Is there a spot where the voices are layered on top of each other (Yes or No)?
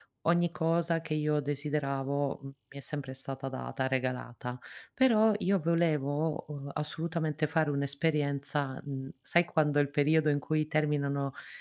No